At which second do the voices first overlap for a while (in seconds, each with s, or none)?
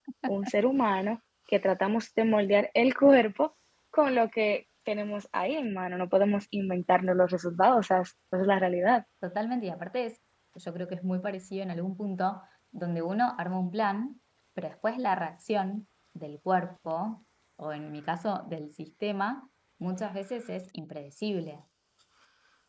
none